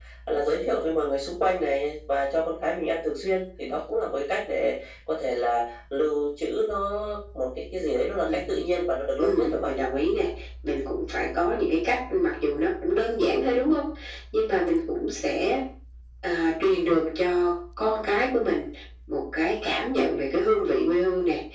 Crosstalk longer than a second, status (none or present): none